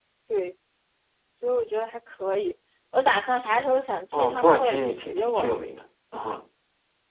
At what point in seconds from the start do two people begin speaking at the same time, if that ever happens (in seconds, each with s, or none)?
4.1 s